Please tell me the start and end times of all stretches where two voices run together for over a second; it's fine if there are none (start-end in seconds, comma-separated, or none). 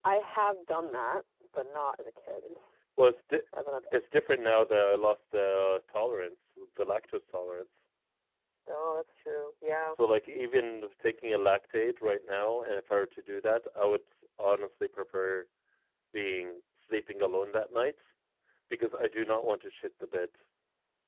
none